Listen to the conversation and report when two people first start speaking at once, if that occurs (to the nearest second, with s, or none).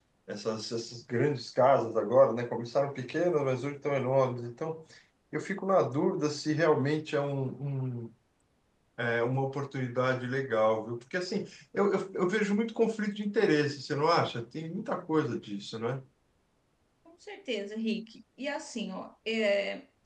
none